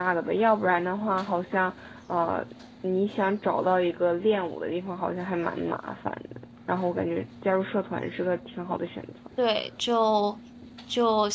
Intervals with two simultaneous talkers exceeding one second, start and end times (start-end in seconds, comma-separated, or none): none